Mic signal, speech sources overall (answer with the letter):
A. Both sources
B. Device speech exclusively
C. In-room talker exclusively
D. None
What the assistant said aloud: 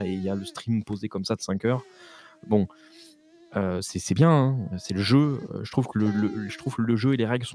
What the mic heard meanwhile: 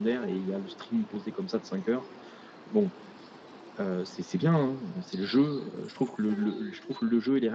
B